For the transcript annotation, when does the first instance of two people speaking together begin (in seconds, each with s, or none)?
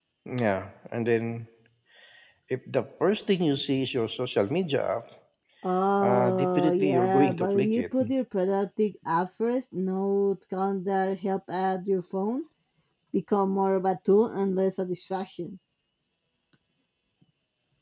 6.0 s